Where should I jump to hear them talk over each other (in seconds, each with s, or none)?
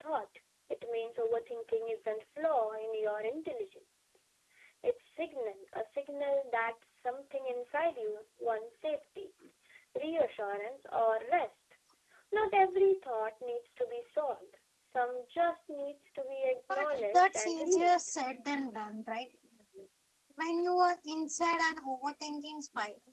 16.7 s